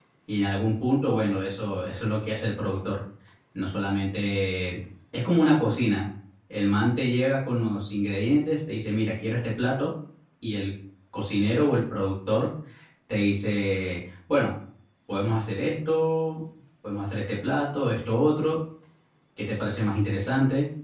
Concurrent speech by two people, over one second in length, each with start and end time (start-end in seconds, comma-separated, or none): none